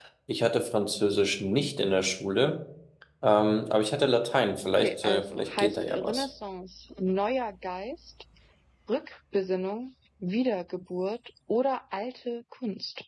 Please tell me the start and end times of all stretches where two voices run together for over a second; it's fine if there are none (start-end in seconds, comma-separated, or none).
4.7-6.2